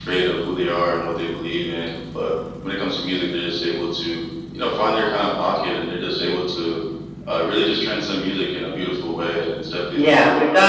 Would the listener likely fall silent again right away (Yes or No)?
No